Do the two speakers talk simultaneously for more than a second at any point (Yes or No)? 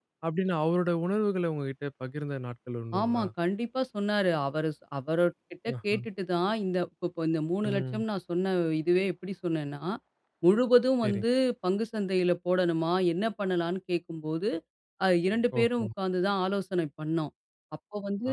No